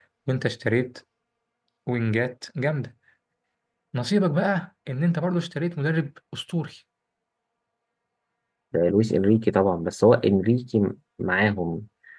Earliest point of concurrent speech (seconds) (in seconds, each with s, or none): none